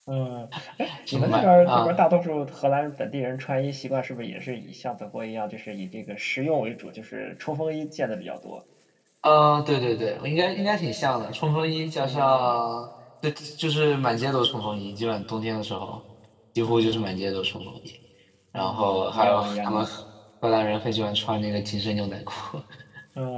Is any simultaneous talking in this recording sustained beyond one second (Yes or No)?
Yes